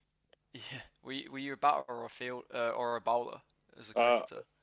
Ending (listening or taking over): taking over